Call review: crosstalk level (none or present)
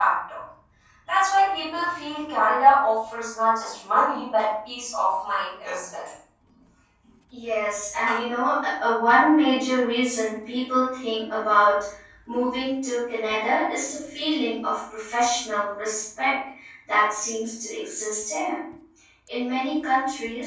none